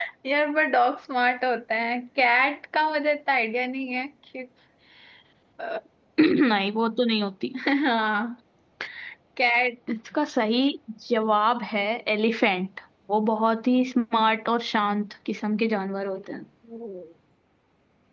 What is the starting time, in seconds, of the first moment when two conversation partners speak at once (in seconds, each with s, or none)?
none